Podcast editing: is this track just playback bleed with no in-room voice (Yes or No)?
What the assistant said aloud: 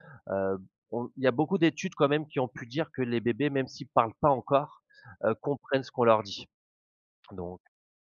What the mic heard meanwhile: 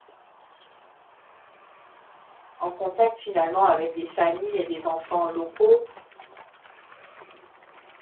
No